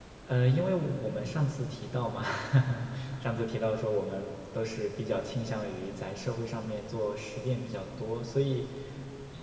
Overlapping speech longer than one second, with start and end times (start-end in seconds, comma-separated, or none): none